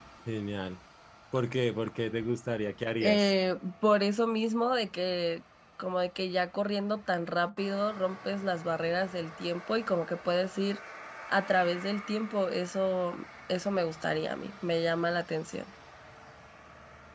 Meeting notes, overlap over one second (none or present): none